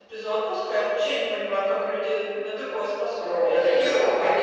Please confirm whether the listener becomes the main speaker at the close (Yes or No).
Yes